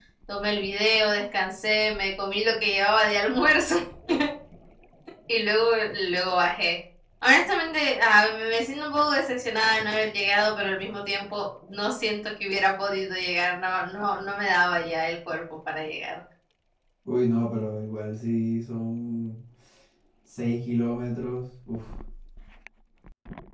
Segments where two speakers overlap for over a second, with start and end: none

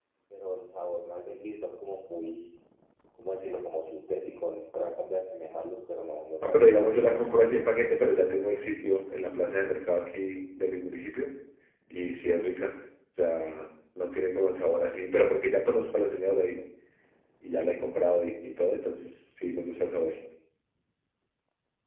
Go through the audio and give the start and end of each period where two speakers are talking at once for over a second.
6.4-7.7

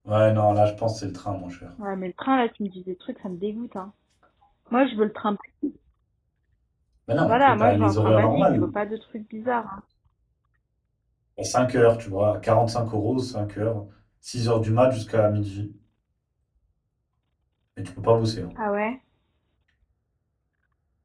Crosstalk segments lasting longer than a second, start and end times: 7.3-8.6

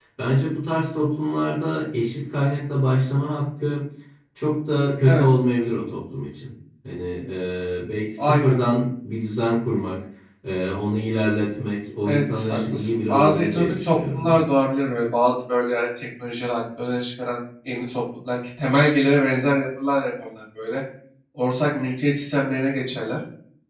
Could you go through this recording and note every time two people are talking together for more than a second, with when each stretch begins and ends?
12.1-14.4

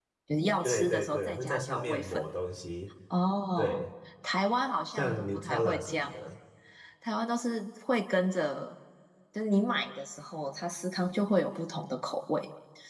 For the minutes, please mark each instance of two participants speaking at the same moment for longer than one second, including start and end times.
0.6-2.2, 4.9-6.2

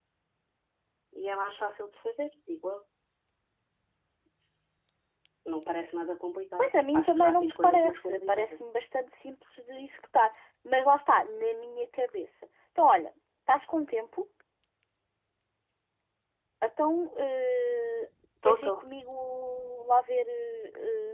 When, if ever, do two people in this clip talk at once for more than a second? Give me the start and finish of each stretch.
6.6-8.6

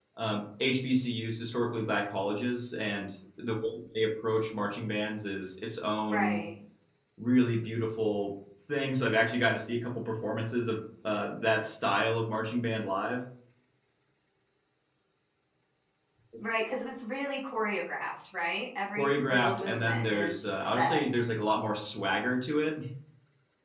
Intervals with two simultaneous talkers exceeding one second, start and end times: 19.0-21.0

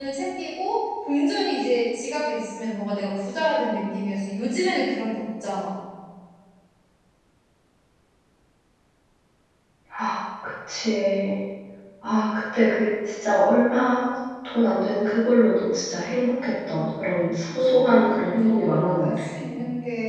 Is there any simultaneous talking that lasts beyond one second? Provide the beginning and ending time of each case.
17.6-19.3

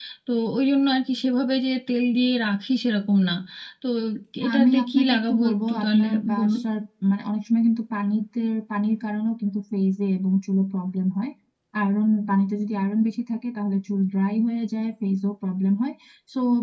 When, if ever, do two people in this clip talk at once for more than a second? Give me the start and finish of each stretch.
4.5-6.6

